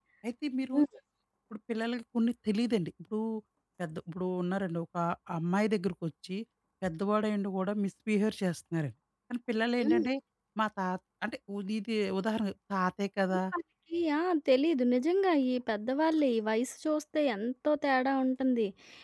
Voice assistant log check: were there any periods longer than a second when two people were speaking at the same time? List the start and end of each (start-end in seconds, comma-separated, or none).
none